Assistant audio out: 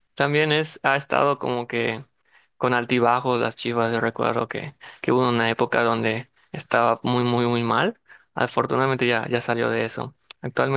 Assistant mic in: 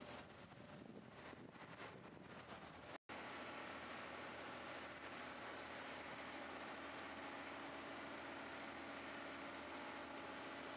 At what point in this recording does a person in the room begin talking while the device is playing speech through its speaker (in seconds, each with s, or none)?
none